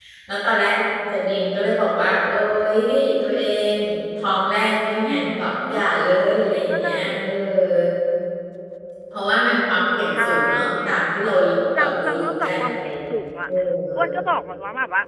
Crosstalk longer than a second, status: present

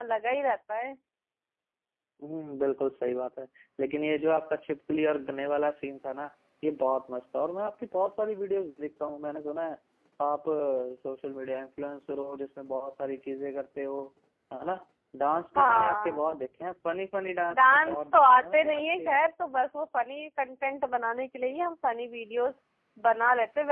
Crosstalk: present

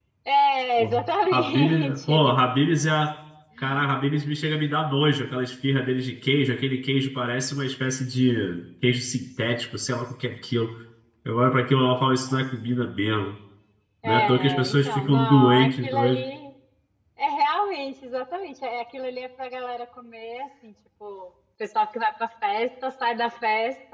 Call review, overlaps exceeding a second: present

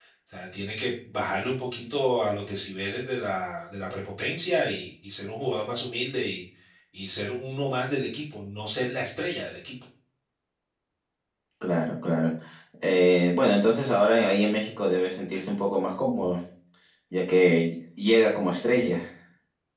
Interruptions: none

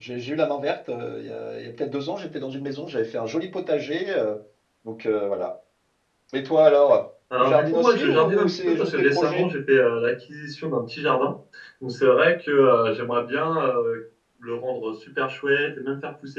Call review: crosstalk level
present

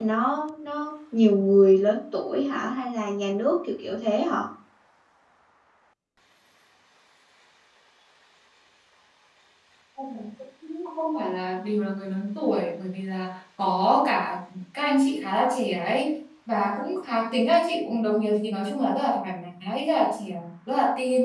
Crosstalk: none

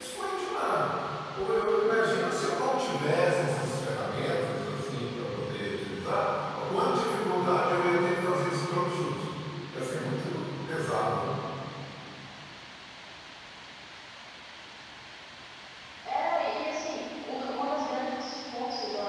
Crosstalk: none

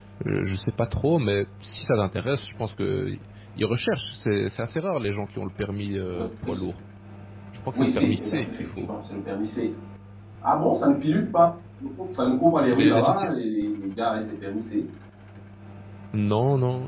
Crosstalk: present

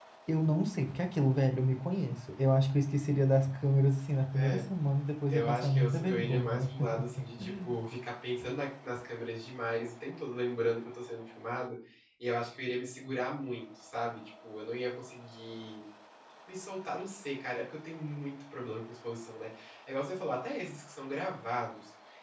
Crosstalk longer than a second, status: present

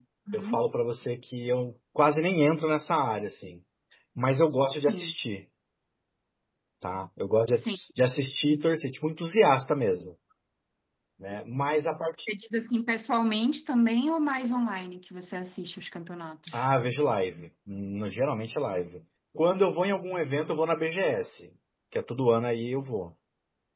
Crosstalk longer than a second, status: none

